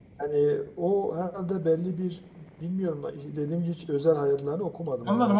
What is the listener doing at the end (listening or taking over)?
taking over